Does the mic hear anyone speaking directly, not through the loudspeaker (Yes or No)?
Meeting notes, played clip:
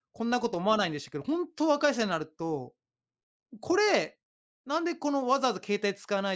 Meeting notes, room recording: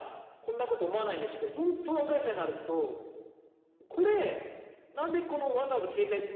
No